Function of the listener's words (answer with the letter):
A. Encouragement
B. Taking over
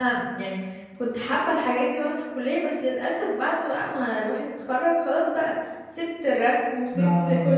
A